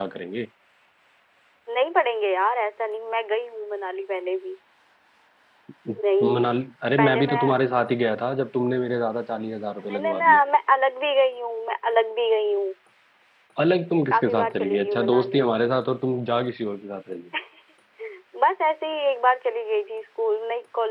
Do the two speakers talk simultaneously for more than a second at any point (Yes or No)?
Yes